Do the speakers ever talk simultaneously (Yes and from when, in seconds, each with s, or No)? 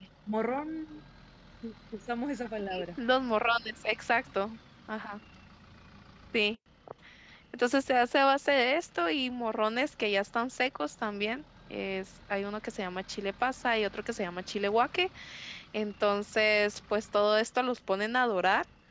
No